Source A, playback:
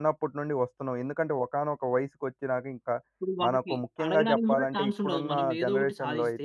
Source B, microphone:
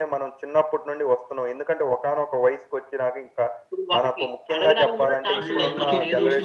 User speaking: Yes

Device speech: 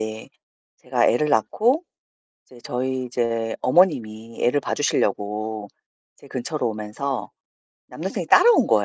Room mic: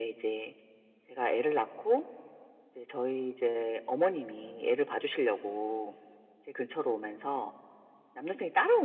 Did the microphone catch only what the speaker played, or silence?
Yes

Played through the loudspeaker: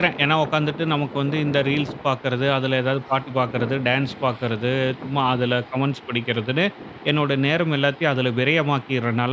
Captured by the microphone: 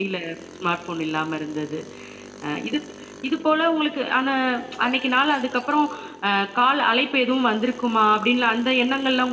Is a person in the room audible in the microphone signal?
Yes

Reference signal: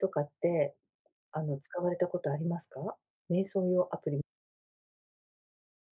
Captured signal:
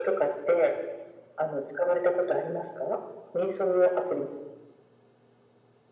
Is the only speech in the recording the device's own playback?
Yes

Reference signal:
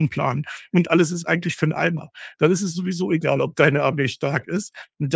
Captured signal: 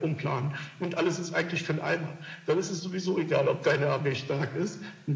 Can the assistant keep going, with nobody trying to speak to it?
Yes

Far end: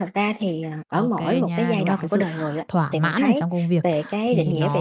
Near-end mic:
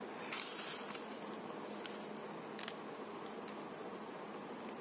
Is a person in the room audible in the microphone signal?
No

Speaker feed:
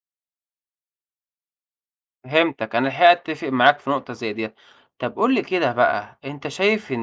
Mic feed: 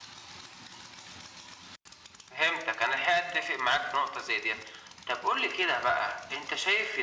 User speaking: No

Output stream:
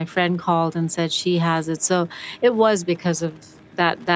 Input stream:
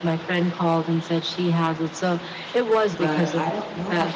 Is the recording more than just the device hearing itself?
Yes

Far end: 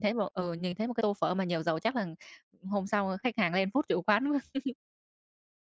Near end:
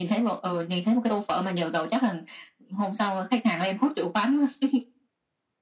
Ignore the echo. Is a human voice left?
No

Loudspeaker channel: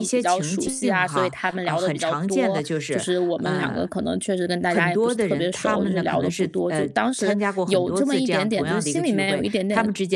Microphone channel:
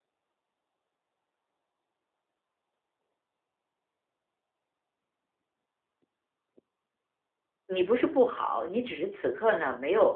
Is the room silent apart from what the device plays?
No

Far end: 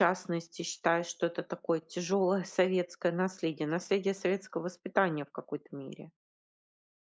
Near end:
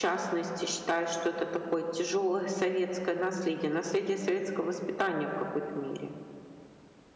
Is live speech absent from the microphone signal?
Yes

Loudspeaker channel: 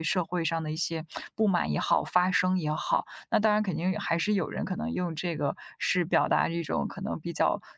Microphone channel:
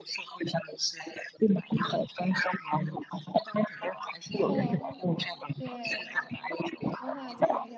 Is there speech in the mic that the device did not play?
Yes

